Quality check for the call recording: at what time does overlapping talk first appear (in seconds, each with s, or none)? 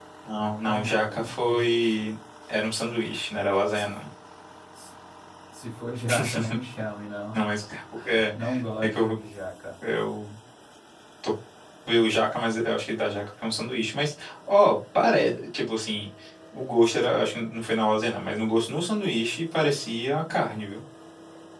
0.6 s